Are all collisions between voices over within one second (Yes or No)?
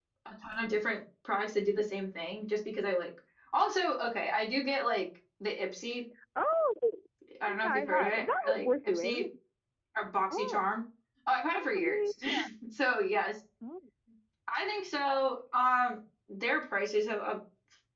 No